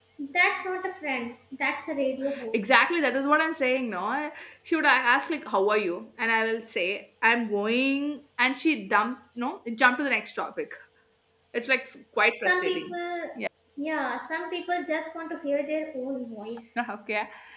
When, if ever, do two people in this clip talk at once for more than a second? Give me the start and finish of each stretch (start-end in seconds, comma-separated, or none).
none